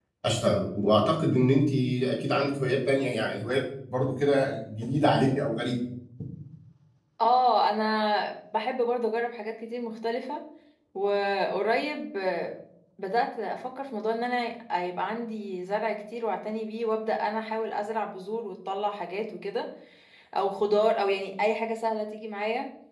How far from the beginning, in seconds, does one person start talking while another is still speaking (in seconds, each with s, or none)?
none